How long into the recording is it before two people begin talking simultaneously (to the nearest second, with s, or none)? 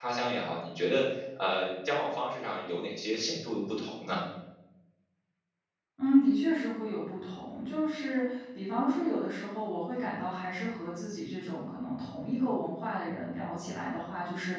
none